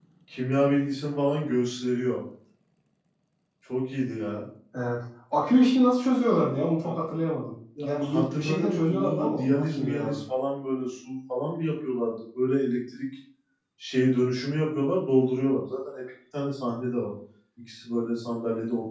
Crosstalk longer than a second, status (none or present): present